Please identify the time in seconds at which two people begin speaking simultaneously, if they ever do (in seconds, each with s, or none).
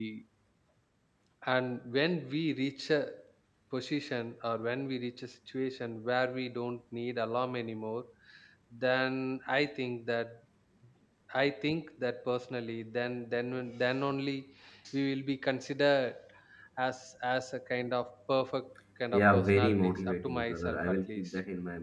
19.1 s